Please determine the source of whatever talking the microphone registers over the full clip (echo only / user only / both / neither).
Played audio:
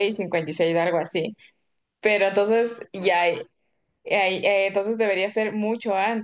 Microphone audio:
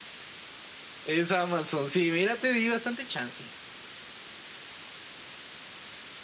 user only